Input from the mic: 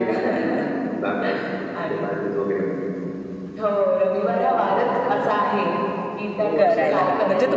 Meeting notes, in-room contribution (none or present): present